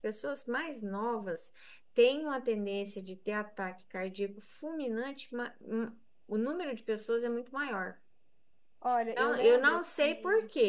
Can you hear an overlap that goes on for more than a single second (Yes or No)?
Yes